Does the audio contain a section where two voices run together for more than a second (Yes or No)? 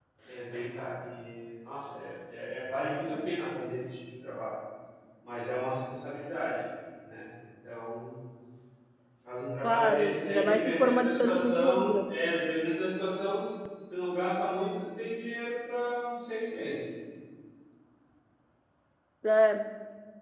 Yes